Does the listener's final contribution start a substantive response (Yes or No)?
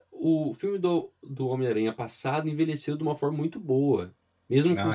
No